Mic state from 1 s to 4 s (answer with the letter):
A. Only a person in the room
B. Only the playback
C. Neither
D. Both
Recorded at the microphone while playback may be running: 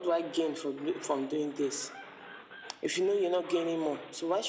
B